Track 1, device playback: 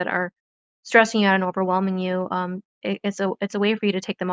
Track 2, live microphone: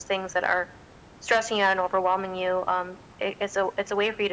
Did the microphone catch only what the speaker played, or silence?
Yes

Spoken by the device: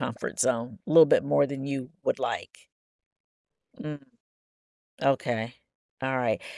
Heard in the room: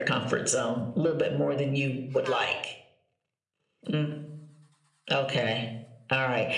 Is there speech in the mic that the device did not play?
Yes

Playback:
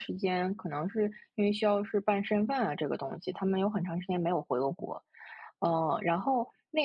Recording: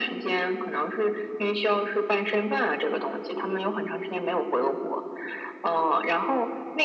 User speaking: No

